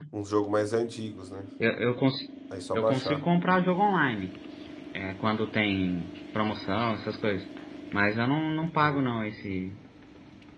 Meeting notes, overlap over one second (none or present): none